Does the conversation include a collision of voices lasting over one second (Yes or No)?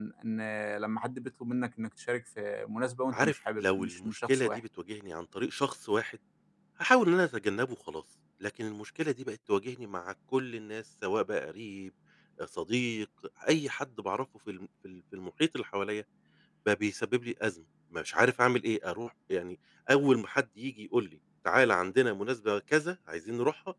Yes